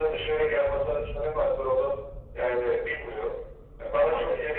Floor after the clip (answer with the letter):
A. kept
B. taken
A